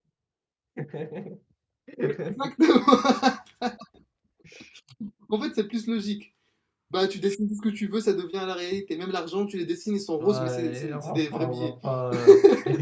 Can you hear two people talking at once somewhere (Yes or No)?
Yes